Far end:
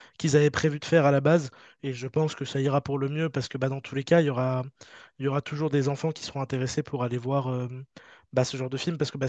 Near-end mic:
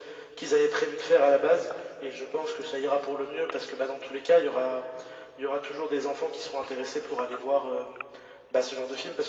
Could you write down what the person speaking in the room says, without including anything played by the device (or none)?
none